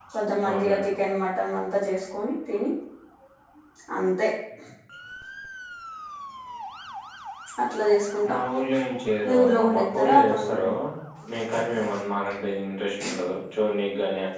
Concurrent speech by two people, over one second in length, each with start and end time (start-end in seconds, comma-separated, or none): 9.2-10.6